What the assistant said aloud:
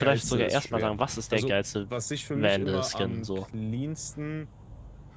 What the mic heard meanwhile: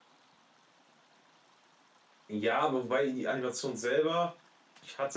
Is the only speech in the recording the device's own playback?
No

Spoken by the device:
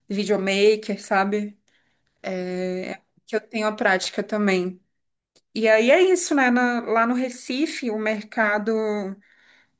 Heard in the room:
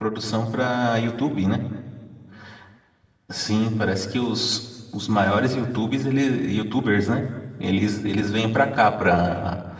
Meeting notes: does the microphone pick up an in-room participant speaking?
Yes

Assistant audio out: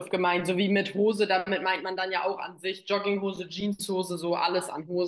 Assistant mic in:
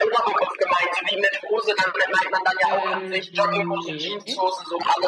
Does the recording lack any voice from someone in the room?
No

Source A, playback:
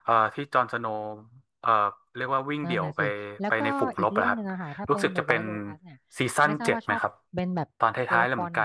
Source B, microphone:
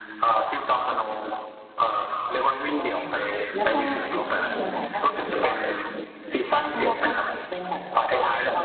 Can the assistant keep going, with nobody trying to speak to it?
Yes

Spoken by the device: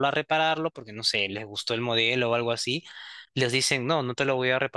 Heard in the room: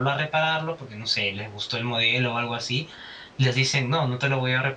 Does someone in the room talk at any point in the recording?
No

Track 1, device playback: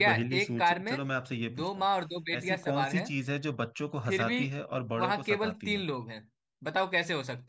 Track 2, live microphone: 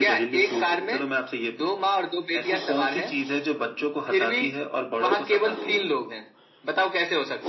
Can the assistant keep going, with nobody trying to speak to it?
Yes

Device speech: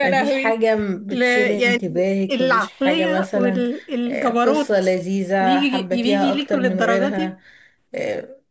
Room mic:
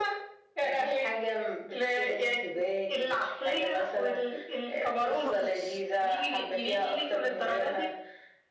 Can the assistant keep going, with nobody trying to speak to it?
No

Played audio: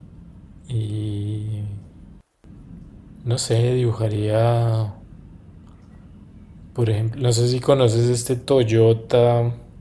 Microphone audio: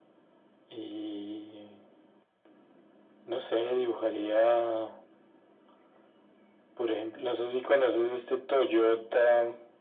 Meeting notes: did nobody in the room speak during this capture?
Yes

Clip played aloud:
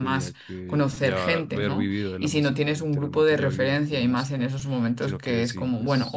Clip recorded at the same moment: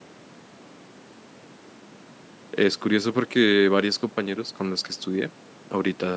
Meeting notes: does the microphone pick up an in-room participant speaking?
Yes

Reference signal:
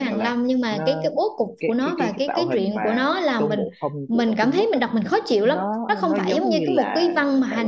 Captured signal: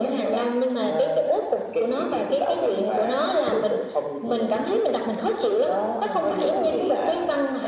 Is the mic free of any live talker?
Yes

